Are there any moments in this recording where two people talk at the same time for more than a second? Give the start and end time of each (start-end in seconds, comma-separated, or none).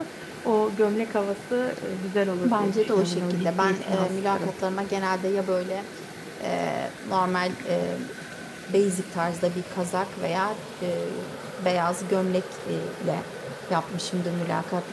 2.4-4.5